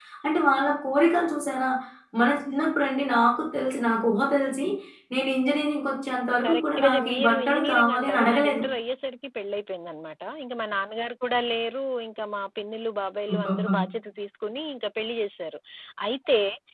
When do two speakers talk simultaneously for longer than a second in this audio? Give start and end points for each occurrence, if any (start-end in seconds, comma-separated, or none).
6.4-8.6